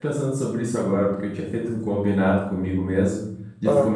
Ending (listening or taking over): listening